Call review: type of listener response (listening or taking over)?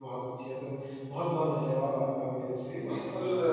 taking over